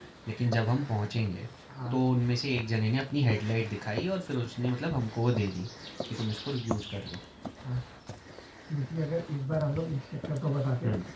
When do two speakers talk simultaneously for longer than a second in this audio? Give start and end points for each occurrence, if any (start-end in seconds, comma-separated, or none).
none